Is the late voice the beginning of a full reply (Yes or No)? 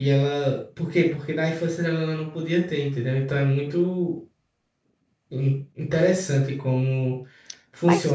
Yes